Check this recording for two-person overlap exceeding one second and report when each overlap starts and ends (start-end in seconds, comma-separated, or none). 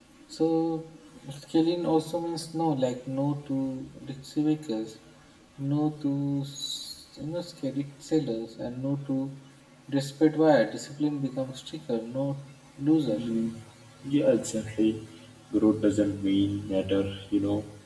none